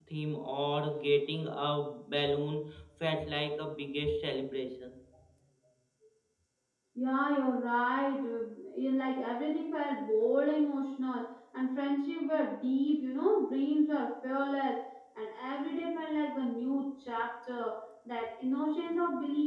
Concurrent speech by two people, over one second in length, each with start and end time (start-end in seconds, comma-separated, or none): none